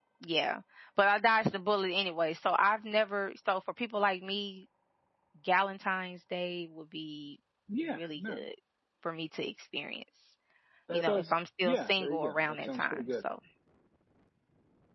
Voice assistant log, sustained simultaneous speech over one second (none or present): present